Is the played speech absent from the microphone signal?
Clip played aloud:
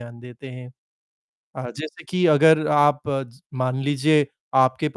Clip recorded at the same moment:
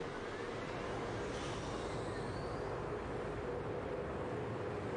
Yes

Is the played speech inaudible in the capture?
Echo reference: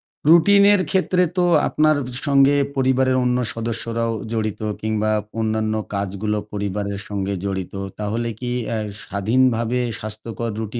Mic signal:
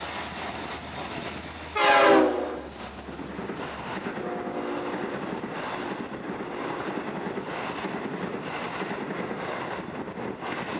Yes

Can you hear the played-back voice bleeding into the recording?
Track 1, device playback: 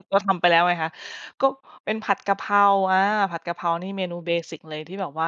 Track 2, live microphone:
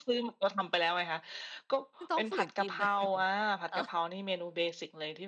Yes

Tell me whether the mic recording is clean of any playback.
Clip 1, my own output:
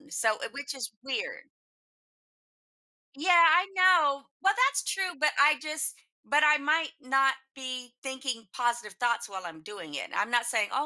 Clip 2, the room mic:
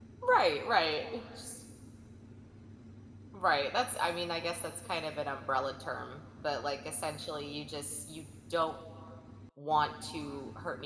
Yes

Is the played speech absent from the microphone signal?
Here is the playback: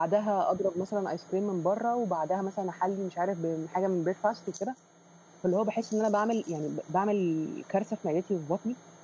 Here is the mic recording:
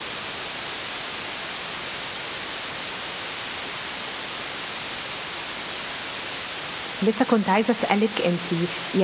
Yes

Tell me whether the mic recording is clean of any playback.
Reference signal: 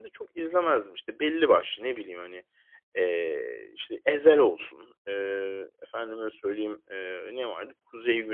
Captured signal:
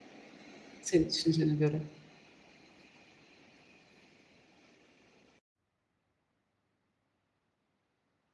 Yes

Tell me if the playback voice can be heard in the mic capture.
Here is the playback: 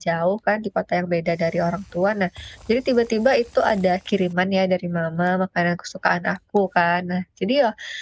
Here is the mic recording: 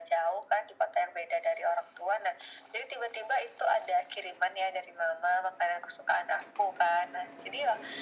Yes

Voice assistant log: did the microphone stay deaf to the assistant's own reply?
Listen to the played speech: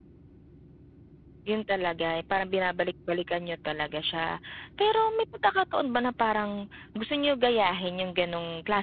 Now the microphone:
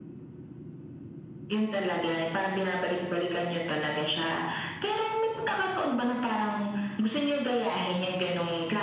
No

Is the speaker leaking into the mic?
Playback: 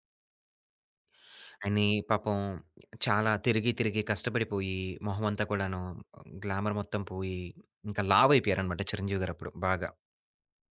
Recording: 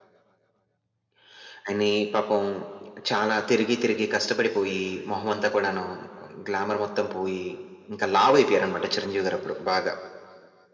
Yes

